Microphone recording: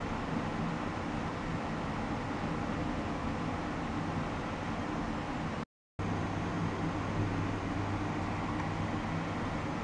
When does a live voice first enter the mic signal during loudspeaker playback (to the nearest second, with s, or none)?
none